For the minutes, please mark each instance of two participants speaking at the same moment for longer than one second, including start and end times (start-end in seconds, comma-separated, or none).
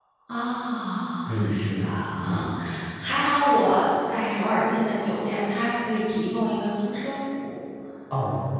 1.3-2.5